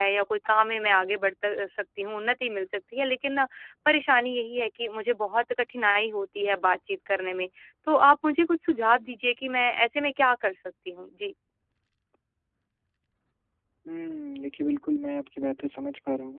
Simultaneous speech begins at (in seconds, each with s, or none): none